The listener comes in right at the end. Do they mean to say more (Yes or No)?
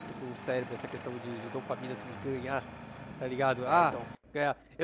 No